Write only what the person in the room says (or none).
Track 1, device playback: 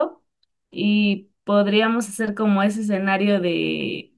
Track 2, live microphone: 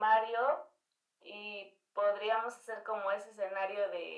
none